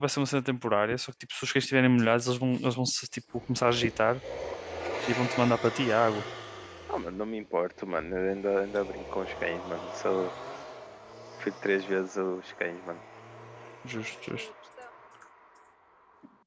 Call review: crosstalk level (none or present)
none